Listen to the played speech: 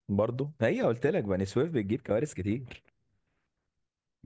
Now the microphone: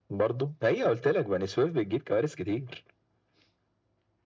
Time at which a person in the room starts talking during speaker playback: none

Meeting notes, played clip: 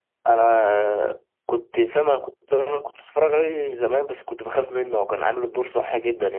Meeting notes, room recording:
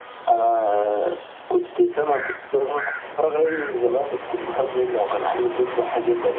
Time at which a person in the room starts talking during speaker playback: none

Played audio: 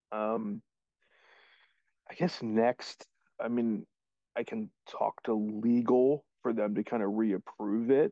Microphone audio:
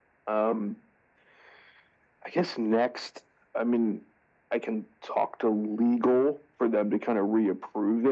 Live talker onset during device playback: none

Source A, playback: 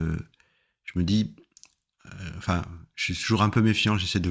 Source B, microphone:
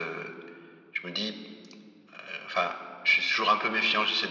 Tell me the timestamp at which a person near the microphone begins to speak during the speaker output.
none

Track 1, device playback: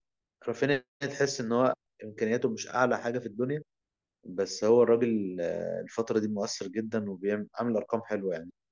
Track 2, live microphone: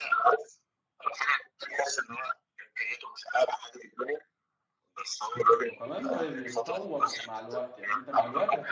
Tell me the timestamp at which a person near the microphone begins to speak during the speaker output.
5.7 s

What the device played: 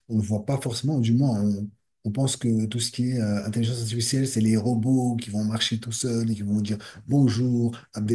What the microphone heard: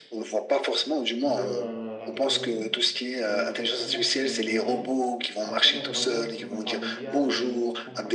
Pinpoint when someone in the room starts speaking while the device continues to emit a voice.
1.2 s

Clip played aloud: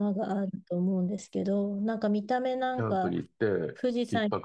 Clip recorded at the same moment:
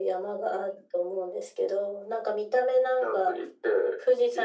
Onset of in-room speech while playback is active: none

